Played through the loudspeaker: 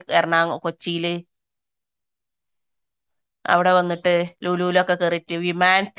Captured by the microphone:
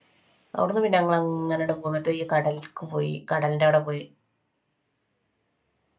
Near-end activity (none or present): present